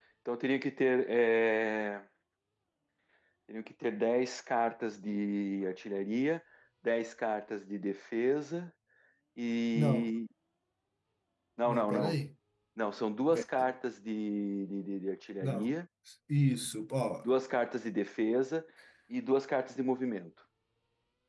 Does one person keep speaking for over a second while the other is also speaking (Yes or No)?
No